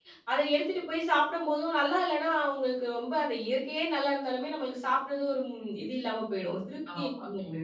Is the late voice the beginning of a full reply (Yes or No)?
Yes